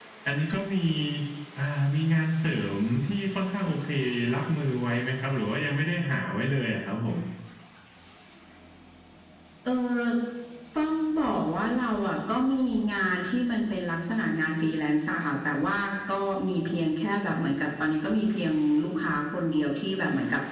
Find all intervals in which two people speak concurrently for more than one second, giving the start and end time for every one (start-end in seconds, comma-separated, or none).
none